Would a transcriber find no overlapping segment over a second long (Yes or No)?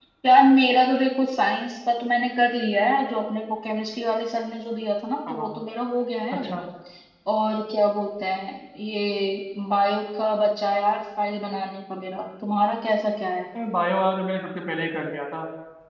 Yes